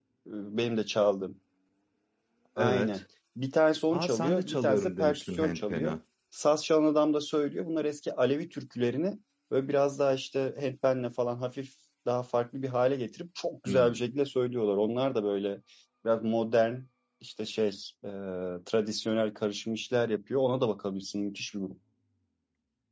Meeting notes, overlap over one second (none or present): present